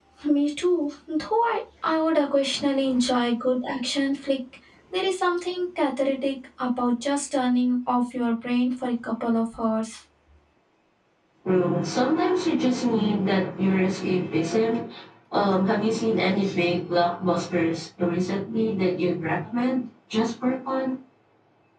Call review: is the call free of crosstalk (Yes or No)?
Yes